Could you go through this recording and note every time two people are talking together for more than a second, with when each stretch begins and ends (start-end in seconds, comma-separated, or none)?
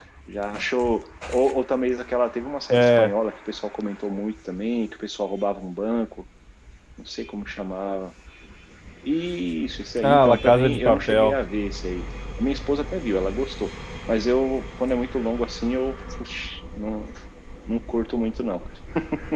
10.0-11.4